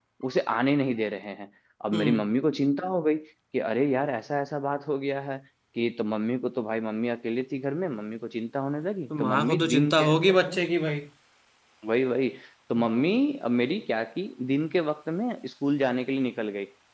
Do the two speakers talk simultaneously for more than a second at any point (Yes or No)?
Yes